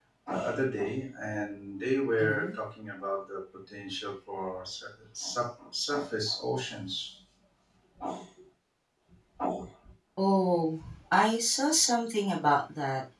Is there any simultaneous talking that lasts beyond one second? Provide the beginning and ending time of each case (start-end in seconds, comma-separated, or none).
none